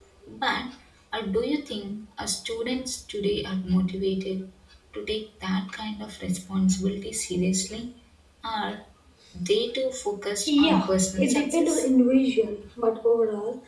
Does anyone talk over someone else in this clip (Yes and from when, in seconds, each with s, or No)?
Yes, from 10.5 s